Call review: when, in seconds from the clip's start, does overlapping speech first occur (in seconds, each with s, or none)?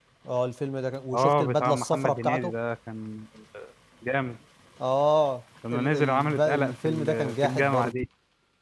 1.1 s